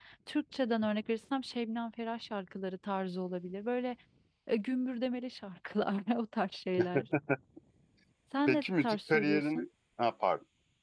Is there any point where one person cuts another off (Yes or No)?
Yes